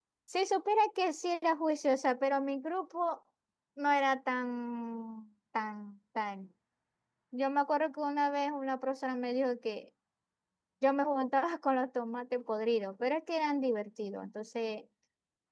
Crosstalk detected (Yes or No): No